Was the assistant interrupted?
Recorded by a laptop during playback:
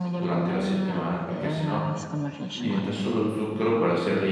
Yes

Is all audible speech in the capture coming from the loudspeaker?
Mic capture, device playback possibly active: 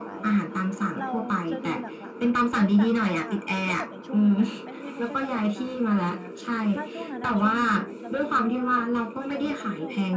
No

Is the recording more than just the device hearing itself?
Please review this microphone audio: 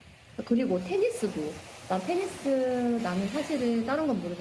Yes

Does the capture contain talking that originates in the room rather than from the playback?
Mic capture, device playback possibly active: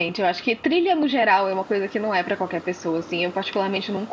Yes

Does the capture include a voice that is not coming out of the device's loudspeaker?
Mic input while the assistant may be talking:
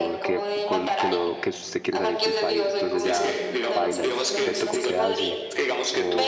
Yes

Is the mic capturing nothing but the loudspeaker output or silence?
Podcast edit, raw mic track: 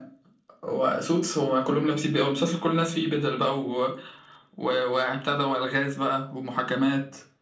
Yes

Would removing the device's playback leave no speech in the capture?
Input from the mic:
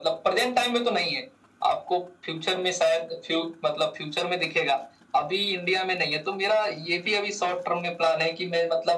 Yes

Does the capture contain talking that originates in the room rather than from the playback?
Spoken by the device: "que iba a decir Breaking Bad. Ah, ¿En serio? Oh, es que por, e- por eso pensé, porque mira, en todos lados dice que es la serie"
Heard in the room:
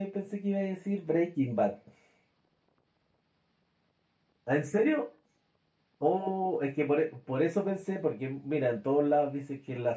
No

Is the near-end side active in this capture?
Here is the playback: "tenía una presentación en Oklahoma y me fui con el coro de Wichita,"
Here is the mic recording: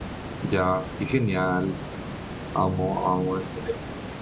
Yes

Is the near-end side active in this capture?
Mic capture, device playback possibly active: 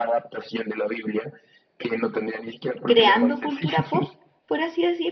Yes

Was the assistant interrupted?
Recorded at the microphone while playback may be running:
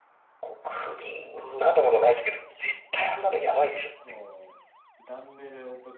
Yes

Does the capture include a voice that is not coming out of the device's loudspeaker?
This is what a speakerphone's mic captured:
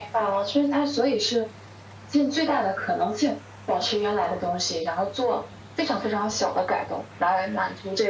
No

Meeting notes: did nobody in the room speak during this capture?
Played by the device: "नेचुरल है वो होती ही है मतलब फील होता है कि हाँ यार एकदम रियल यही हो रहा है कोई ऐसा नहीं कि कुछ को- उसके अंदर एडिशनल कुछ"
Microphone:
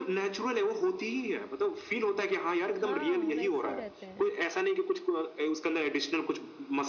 No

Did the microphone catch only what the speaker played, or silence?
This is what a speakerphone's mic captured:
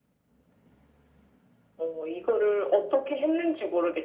Yes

